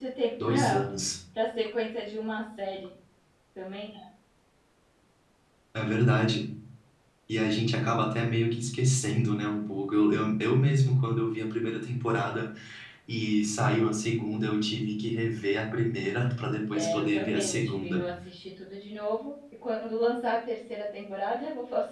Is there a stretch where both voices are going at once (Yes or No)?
Yes